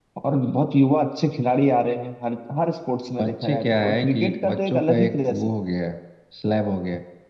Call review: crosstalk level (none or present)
present